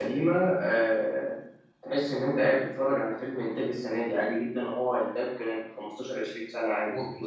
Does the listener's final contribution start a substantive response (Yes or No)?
Yes